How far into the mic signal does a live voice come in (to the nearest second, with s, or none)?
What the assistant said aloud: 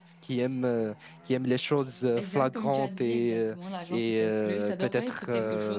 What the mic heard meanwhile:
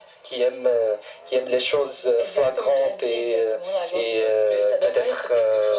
none